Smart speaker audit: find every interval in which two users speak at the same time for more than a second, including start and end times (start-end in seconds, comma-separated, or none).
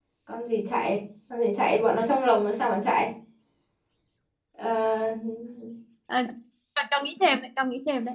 none